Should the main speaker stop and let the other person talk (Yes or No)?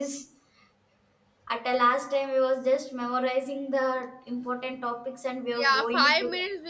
Yes